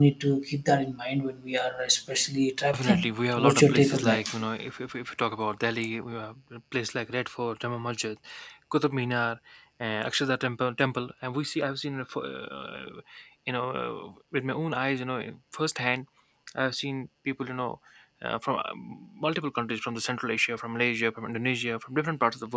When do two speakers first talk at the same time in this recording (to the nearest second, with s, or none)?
3 s